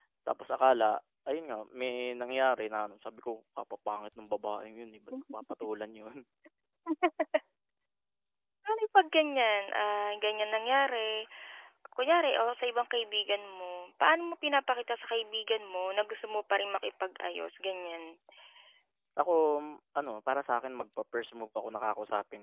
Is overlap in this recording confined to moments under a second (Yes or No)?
Yes